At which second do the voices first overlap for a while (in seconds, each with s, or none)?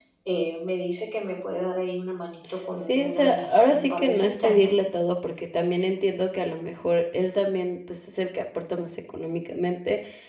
2.8 s